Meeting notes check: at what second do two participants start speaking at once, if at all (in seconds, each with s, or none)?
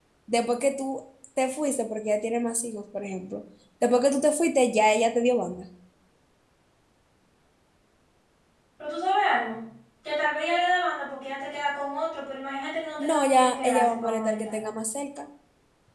13.0 s